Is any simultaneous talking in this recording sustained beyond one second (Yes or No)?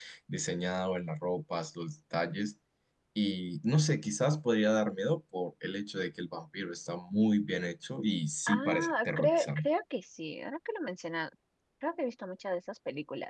Yes